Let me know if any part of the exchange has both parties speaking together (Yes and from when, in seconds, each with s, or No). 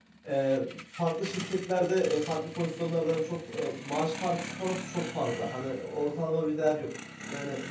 No